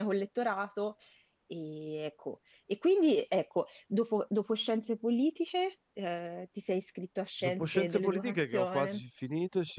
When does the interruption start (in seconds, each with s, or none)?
7.4 s